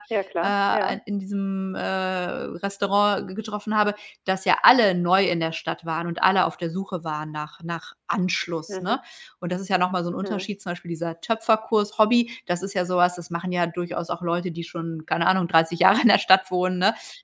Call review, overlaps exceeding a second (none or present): none